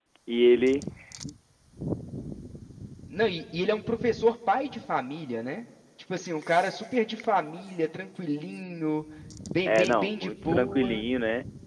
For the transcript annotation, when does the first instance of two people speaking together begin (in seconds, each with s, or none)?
9.7 s